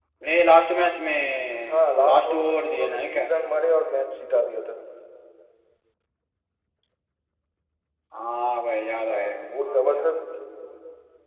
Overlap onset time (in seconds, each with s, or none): 1.7 s